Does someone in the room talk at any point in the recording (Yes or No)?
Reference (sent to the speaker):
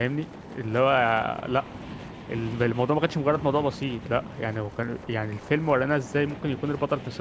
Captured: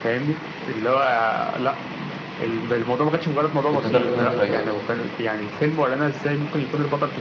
Yes